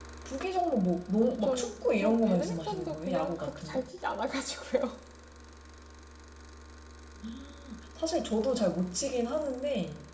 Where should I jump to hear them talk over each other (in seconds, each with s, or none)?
1.2 s